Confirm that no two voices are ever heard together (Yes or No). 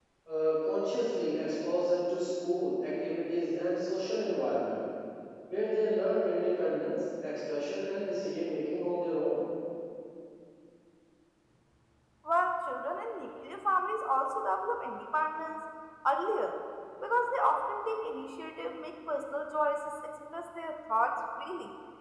Yes